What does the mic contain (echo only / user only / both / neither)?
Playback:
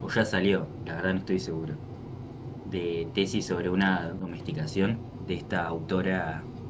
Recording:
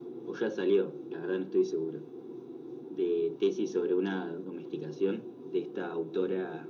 echo only